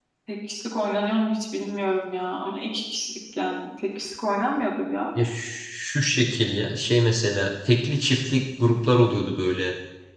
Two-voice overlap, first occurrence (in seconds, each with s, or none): none